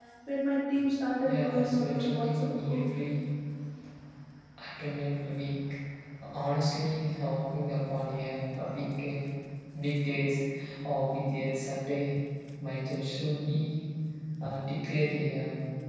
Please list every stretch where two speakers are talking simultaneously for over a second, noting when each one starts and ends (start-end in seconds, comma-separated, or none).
1.2-2.8